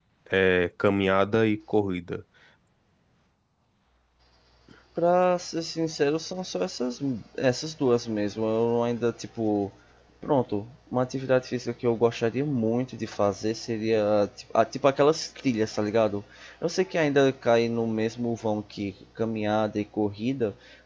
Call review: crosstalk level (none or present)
none